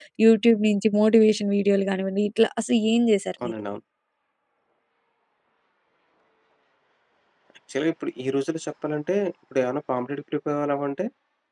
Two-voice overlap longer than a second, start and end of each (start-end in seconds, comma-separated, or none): none